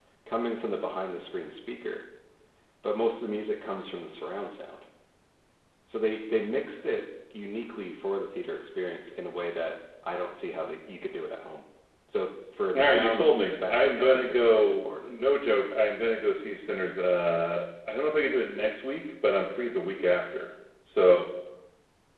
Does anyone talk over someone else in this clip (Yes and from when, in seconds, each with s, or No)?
Yes, from 12.8 s